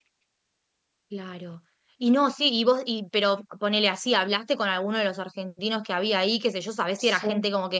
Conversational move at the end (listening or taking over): listening